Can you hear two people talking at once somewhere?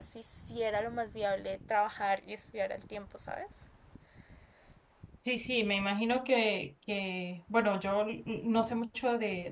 No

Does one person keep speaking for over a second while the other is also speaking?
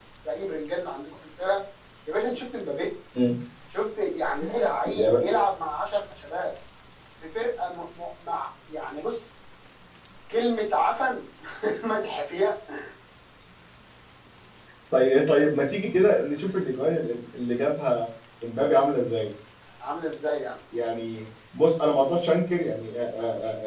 No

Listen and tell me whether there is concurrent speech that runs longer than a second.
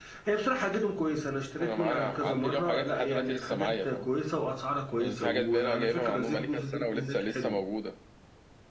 Yes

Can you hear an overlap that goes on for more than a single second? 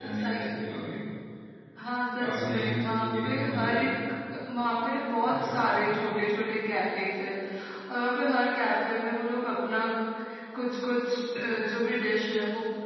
Yes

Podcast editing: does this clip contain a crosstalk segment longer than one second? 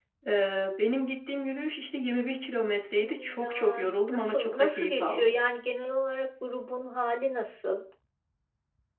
Yes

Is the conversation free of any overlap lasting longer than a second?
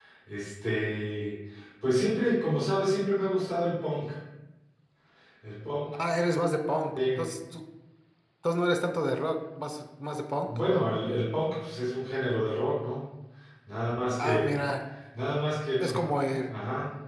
Yes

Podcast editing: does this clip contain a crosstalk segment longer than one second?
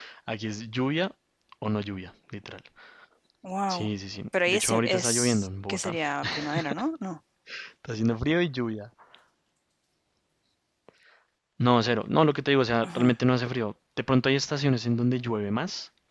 Yes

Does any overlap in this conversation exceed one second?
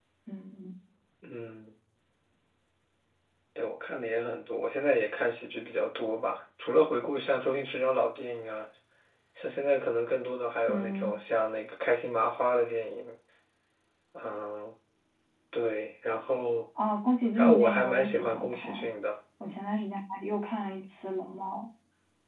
Yes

